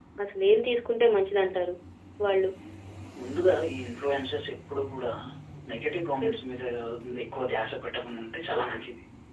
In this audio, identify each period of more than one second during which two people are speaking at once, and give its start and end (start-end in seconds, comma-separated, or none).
none